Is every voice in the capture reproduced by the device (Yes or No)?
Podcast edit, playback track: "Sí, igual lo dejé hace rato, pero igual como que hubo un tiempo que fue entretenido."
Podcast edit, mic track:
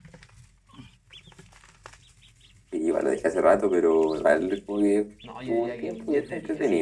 No